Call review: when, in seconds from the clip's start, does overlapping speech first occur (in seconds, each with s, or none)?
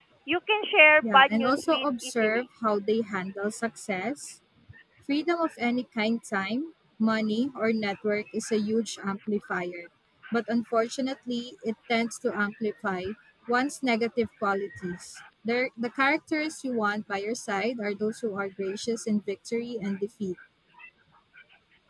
1.1 s